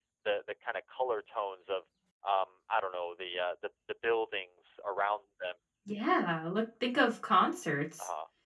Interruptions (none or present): none